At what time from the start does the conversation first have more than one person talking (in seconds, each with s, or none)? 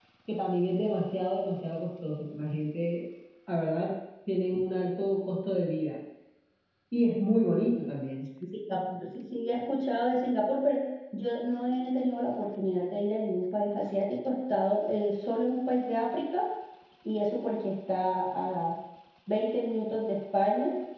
none